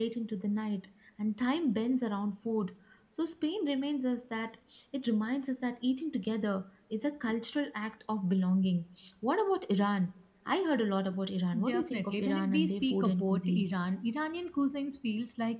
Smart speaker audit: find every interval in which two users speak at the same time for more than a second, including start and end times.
11.7-13.7

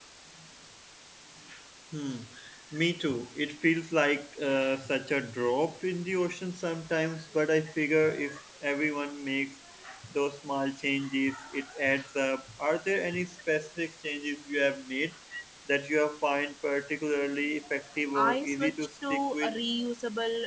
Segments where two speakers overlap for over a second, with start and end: 18.1-19.6

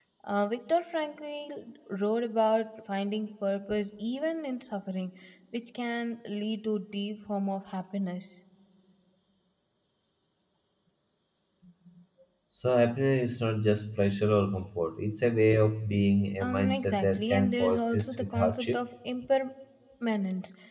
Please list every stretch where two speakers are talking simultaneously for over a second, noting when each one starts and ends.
16.4-18.8

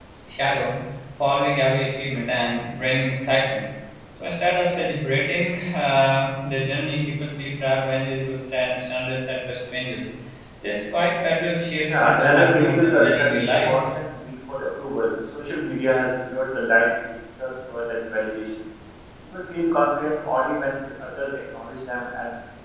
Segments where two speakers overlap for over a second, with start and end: 11.9-13.8

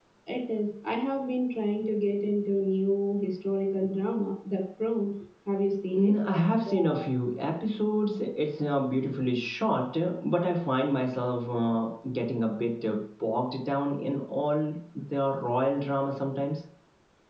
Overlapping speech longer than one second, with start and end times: none

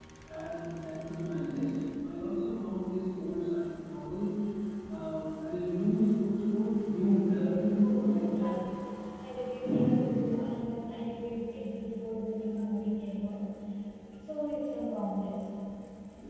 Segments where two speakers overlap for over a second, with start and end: 7.2-8.5

